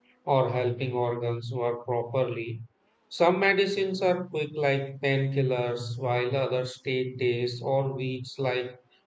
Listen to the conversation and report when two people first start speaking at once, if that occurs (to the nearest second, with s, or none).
none